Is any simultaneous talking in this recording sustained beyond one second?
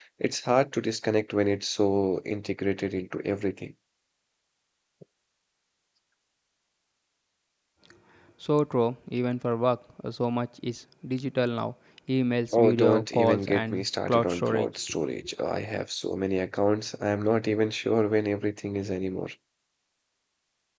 Yes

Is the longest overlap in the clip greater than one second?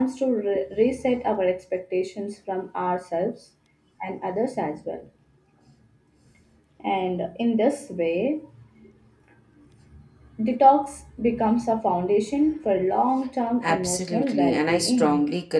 Yes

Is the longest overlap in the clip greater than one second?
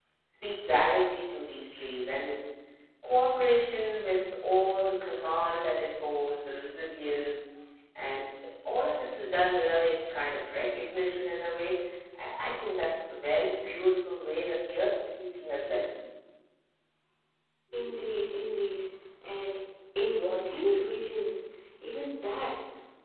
No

